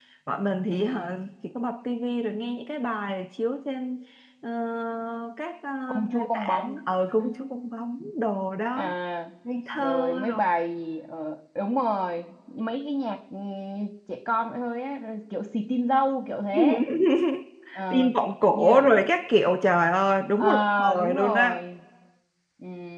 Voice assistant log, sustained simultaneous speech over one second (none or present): present